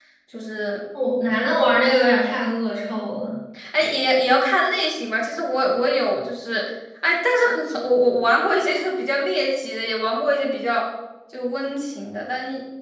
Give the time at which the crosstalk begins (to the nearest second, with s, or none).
none